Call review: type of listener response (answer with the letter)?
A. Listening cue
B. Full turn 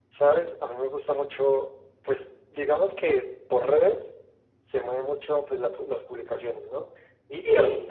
A